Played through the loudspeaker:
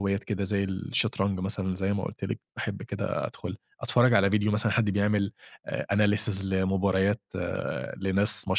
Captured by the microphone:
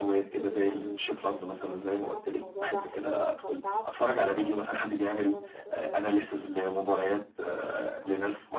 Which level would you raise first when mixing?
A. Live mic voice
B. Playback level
A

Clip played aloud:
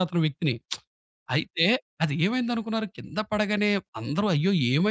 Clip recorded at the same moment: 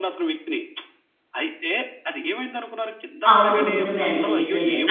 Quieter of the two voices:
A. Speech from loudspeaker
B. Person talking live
A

